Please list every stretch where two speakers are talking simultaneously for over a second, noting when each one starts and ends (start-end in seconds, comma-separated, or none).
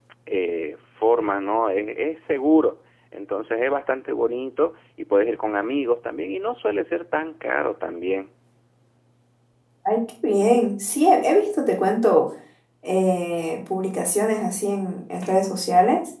none